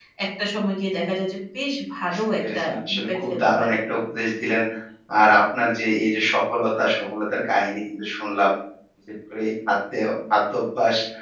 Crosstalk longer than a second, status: present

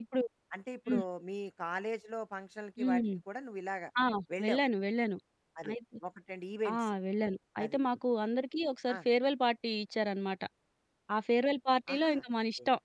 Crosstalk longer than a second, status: none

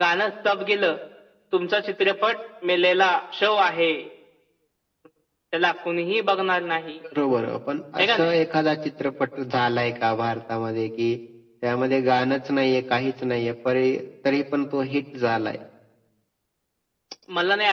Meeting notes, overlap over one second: none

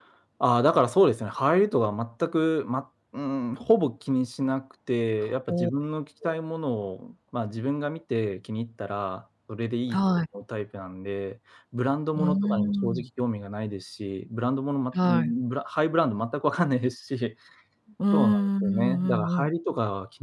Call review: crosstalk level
present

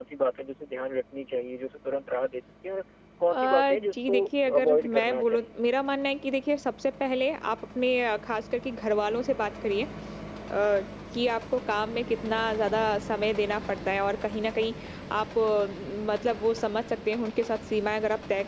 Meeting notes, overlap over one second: present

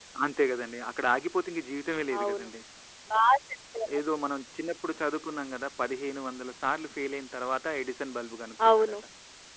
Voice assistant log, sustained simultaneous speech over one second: none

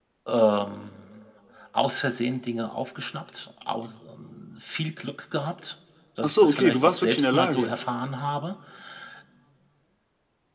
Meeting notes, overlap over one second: present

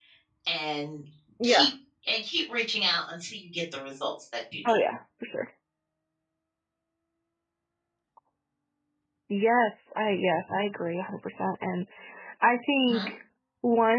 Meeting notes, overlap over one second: none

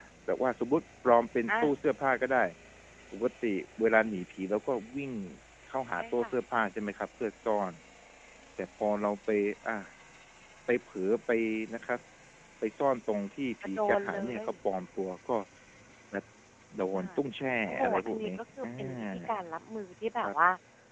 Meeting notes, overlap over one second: present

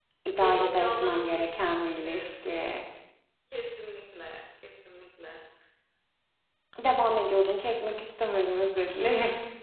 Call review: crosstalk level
present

